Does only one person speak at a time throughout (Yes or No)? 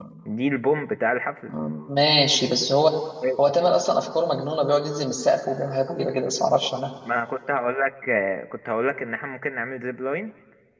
Yes